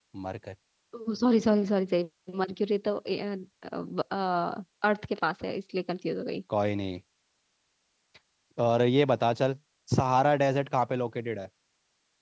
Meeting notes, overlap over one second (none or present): none